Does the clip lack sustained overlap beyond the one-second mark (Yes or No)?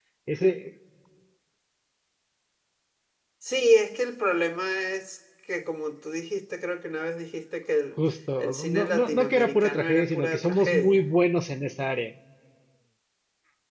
No